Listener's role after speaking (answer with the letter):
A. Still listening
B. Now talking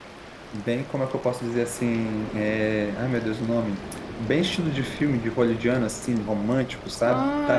B